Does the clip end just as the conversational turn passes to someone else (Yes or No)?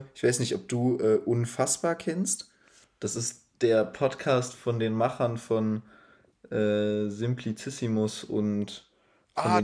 Yes